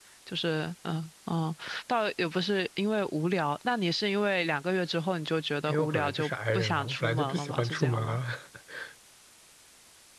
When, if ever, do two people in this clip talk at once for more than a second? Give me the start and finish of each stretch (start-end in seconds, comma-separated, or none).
5.7-8.2